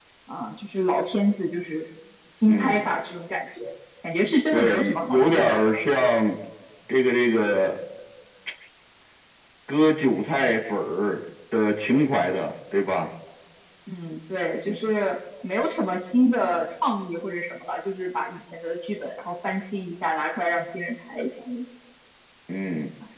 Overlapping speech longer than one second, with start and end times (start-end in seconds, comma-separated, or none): 4.5-5.7